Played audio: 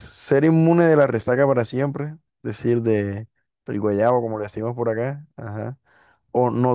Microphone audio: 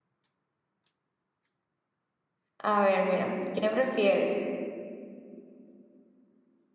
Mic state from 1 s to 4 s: user only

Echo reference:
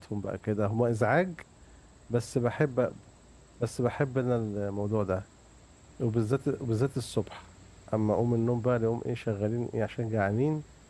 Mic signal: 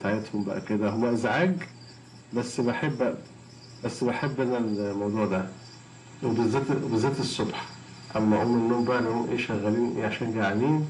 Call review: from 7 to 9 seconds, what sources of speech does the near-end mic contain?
echo only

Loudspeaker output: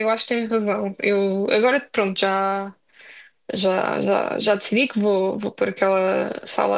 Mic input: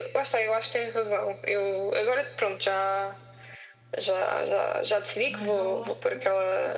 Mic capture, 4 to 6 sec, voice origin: both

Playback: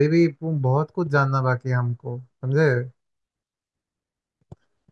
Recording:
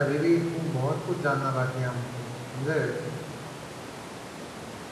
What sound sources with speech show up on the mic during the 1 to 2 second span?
echo only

